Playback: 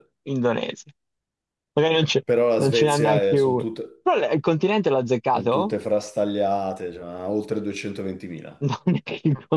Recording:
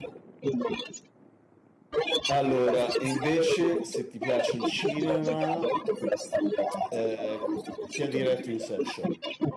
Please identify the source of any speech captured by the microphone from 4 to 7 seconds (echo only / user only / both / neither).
both